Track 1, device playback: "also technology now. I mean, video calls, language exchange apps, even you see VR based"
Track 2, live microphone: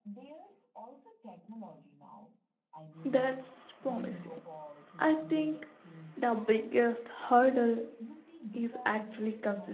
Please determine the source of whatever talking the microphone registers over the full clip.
both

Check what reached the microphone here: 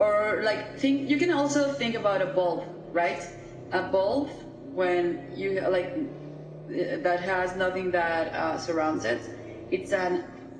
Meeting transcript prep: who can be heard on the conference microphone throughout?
echo only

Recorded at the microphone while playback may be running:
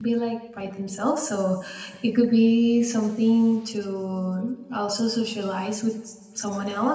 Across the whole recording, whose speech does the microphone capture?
user only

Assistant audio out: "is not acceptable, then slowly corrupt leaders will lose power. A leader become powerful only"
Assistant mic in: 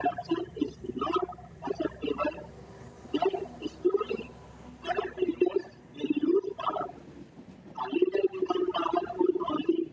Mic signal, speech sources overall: echo only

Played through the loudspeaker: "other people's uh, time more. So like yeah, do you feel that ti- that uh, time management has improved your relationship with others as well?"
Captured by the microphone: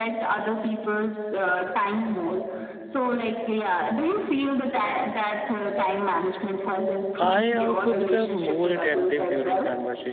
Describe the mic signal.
both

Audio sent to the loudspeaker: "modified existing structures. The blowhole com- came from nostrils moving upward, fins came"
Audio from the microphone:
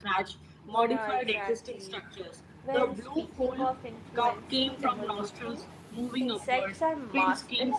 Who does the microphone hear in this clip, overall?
both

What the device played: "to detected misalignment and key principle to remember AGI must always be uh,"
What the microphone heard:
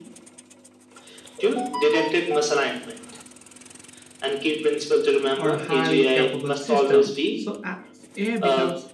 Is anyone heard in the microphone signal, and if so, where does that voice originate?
both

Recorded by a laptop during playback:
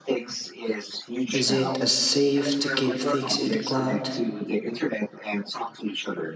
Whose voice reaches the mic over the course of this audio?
both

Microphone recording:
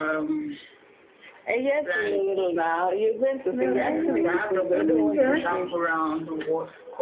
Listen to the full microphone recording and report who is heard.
both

